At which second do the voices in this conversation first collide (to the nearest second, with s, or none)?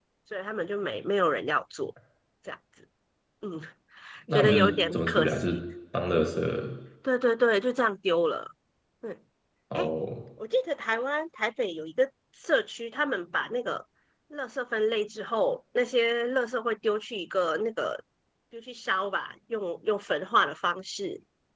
4 s